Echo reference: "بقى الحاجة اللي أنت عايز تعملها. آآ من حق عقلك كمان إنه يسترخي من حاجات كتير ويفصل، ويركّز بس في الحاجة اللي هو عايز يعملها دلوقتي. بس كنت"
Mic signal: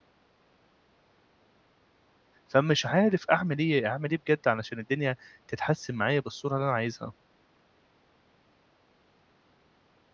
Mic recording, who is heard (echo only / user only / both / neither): user only